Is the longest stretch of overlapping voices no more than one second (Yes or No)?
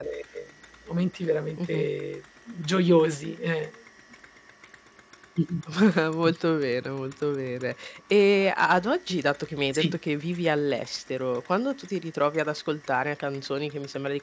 Yes